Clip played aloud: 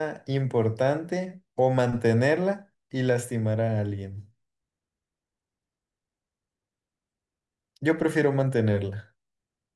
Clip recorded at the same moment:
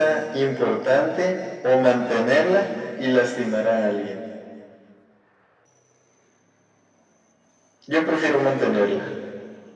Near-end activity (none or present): none